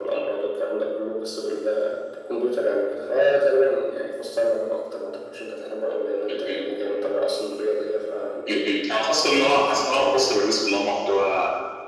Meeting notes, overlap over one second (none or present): present